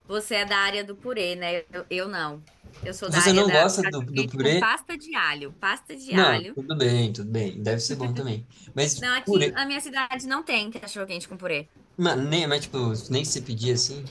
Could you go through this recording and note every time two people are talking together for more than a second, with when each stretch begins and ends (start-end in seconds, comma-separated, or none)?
3.1-4.7